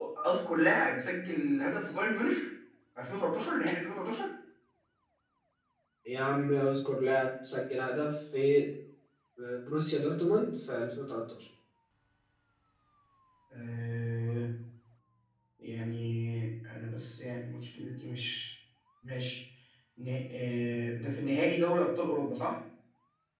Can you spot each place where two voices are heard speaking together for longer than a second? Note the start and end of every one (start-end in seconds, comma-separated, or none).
none